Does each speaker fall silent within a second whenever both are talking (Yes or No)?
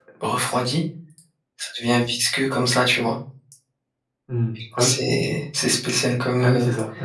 Yes